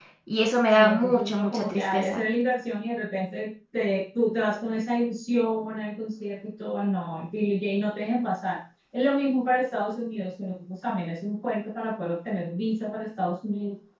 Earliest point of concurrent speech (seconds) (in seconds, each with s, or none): 0.8 s